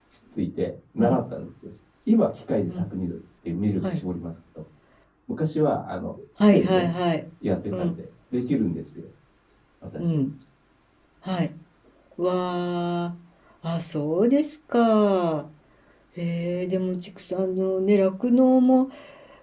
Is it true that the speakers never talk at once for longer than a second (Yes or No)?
Yes